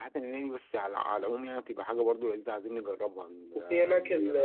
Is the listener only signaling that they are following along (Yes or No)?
No